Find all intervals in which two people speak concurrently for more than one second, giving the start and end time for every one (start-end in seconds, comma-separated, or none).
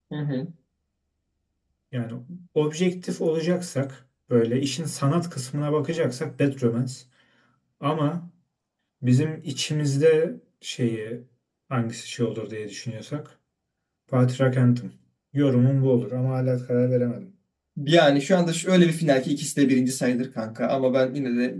none